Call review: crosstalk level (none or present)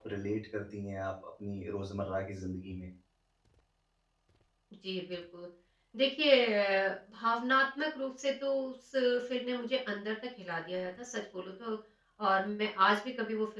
none